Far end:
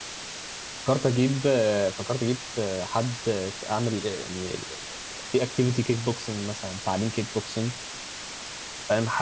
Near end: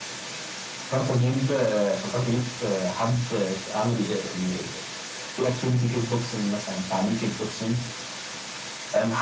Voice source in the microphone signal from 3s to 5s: echo only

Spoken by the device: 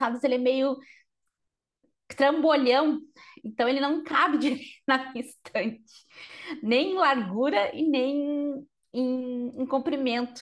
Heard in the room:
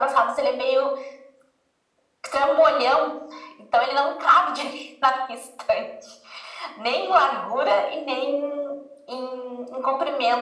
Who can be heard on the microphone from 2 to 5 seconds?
echo only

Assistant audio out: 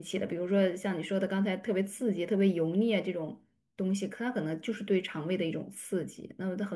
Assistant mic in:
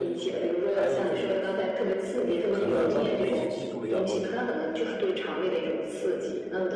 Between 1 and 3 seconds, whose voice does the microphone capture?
both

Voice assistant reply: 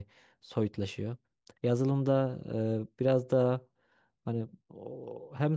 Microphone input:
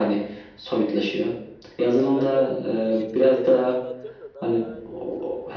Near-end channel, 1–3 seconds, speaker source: both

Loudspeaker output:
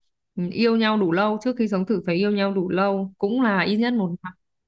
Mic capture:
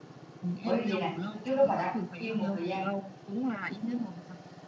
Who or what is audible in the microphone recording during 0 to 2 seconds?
both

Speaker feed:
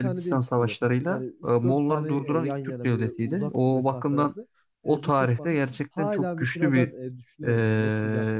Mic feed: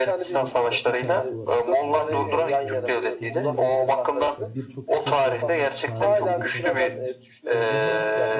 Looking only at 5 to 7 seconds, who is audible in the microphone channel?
both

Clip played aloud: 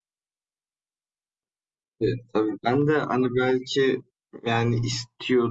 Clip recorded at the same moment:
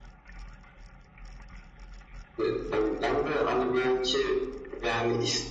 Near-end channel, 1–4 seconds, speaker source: echo only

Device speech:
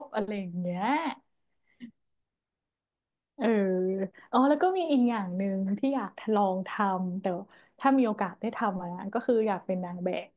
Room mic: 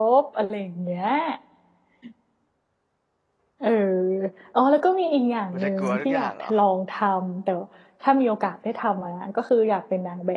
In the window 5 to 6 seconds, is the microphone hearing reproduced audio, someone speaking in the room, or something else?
both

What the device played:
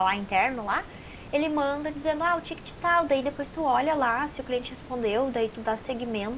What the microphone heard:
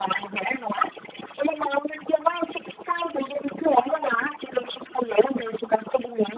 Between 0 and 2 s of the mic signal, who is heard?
echo only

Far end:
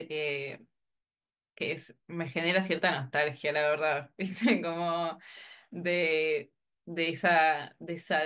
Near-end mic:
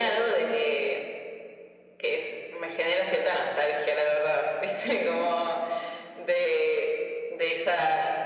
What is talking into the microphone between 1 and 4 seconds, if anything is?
echo only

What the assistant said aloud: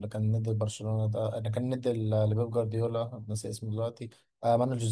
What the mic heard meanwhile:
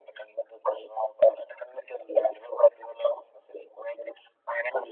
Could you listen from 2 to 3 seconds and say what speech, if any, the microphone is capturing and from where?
echo only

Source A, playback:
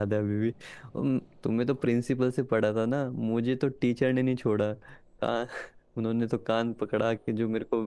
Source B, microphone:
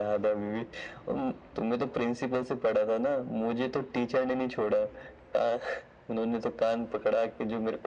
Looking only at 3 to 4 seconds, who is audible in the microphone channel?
echo only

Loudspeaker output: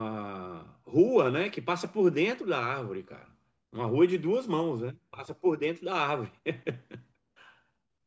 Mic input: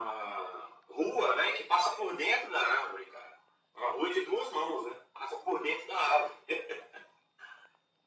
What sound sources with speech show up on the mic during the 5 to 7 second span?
echo only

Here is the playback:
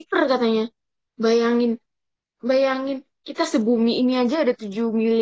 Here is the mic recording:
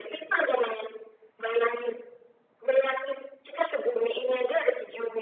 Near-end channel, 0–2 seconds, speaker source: echo only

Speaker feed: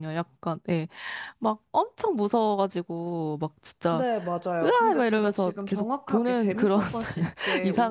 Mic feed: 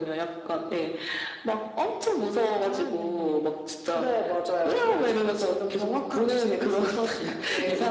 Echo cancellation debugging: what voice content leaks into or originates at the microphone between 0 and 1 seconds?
echo only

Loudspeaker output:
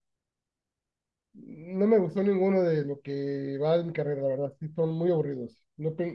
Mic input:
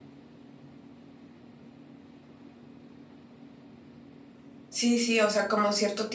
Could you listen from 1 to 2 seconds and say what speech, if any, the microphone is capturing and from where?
neither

